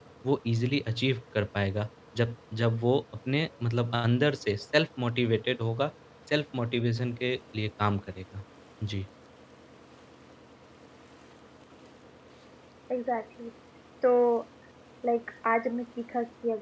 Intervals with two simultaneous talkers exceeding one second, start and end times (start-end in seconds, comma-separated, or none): none